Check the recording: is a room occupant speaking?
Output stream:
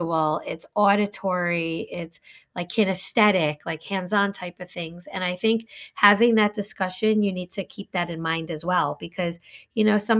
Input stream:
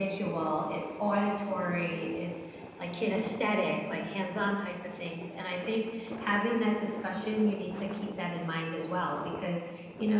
No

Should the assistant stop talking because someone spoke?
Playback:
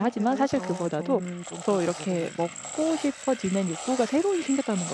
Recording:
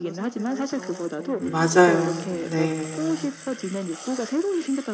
Yes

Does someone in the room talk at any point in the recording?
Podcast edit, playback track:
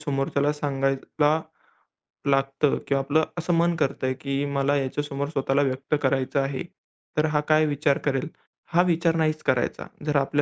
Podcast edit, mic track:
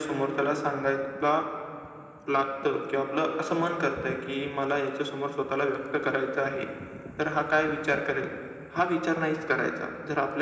No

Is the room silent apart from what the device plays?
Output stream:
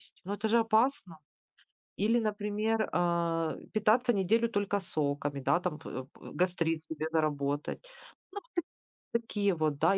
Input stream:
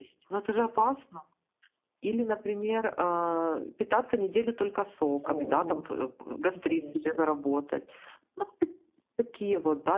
No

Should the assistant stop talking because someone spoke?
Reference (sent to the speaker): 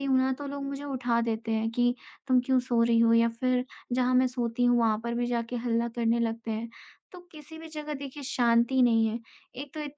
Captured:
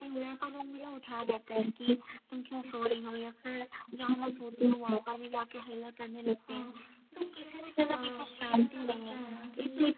Yes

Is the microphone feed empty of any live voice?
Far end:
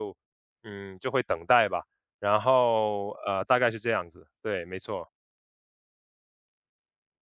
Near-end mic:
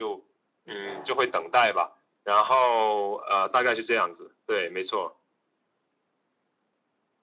No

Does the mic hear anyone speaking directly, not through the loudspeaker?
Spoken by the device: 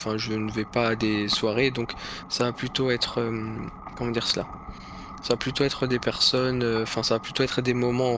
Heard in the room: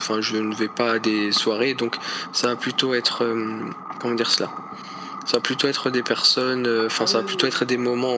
Yes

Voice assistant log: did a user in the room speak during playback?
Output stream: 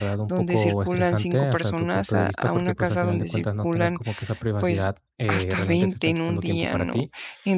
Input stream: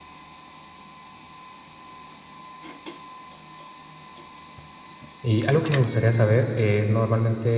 Yes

